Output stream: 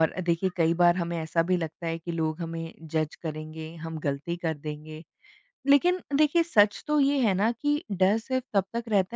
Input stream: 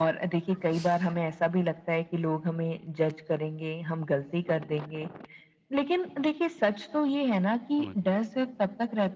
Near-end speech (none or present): present